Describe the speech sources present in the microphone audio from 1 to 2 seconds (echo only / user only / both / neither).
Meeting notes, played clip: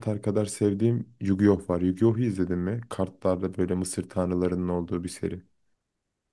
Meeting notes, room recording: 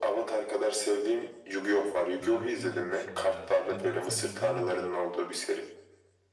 echo only